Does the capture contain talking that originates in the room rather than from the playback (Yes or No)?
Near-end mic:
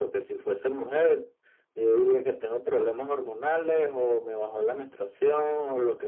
No